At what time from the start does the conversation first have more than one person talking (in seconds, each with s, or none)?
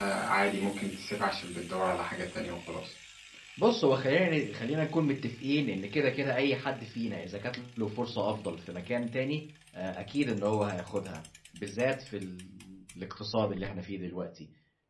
none